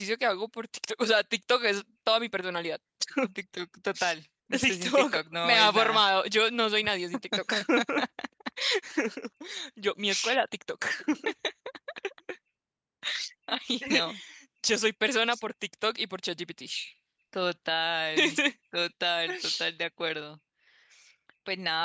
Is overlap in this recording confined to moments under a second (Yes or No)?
No